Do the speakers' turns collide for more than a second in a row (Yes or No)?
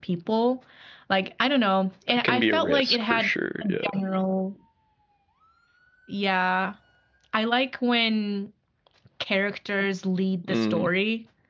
Yes